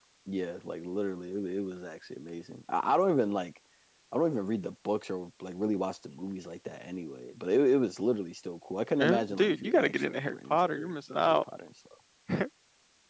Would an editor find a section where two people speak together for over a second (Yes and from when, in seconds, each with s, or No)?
Yes, from 9.0 s